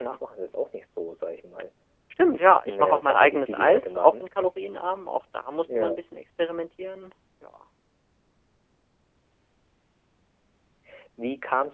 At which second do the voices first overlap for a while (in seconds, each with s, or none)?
2.7 s